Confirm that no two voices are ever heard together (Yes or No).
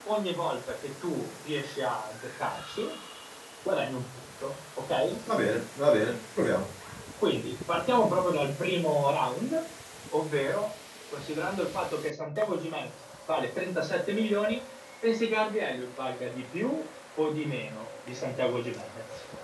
Yes